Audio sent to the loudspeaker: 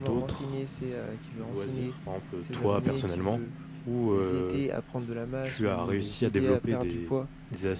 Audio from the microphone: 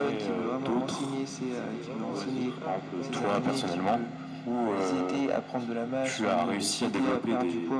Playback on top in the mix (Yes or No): Yes